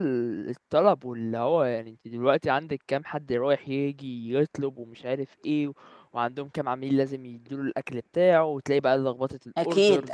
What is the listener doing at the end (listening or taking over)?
listening